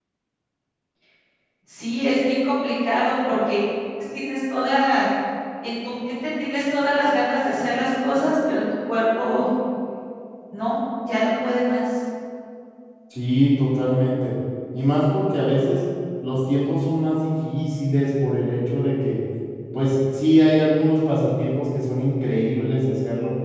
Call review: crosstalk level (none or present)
none